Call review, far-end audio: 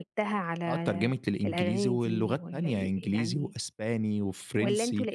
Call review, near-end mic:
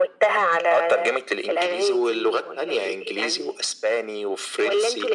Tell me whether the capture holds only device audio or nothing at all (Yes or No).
Yes